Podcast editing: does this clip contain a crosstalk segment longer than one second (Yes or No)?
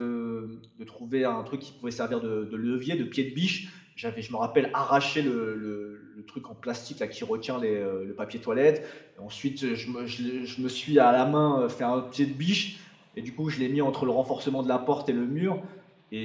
No